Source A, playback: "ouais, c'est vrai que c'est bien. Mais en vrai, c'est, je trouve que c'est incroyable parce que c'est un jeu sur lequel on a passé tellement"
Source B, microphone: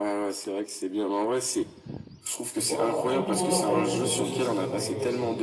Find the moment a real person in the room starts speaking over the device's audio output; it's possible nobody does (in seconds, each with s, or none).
2.6 s